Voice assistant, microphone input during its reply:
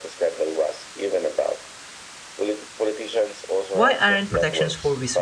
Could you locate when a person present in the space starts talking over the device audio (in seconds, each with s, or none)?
3.7 s